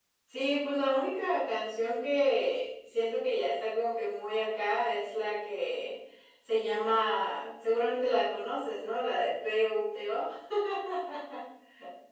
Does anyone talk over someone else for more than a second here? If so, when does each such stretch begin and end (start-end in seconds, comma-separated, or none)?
none